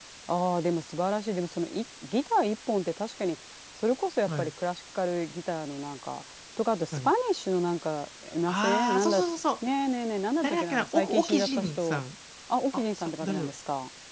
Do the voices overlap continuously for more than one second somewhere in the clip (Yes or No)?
Yes